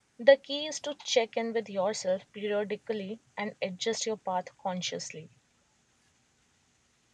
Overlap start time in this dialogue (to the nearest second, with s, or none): none